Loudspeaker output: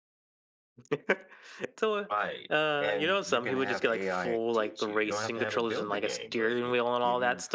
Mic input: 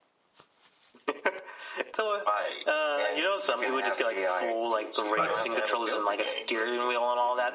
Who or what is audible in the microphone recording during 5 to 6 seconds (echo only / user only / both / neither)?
both